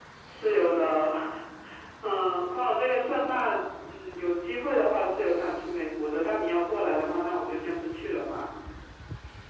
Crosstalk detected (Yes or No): No